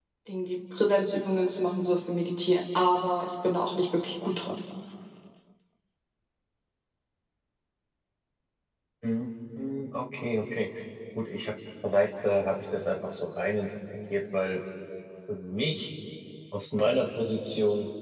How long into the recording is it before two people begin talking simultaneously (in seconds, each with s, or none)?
none